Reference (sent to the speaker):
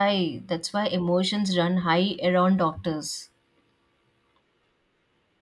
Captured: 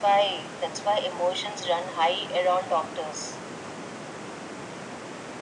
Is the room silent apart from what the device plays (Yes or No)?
Yes